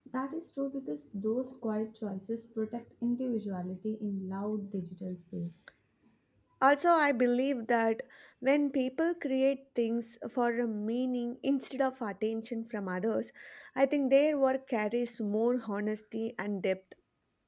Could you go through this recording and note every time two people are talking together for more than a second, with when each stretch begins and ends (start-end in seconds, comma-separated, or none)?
none